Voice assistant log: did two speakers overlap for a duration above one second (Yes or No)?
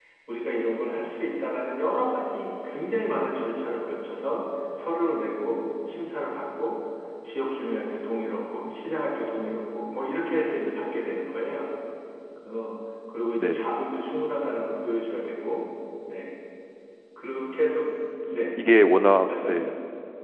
No